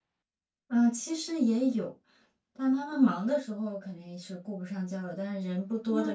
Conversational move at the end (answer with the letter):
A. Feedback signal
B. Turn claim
B